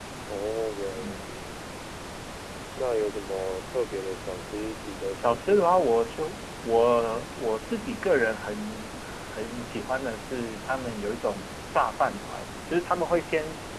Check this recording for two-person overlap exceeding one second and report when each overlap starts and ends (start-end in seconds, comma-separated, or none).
none